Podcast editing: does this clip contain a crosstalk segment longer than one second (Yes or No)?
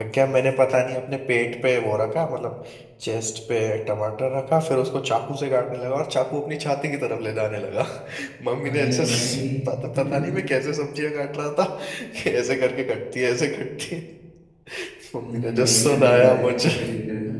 Yes